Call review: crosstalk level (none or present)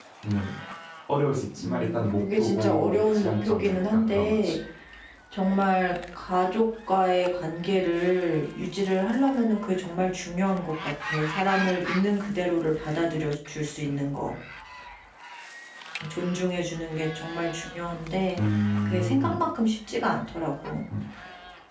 present